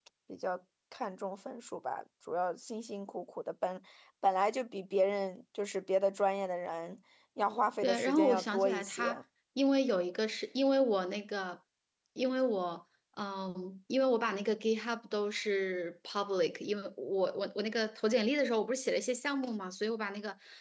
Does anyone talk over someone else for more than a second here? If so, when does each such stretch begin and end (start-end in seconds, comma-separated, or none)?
7.8-9.2